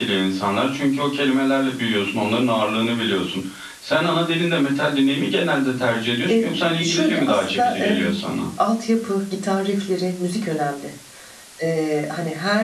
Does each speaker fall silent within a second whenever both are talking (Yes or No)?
No